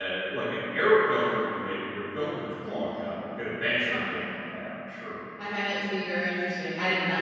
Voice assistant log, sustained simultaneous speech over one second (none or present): none